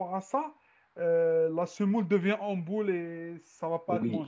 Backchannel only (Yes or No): No